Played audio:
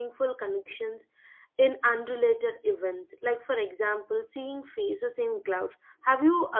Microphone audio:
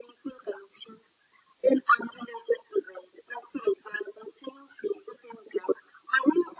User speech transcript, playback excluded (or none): none